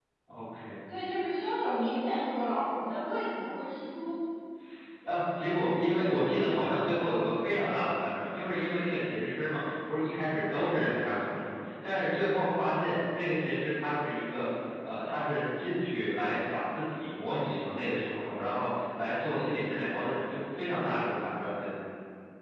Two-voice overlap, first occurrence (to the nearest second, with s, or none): none